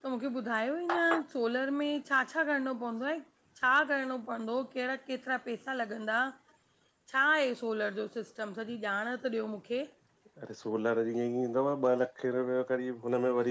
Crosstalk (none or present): none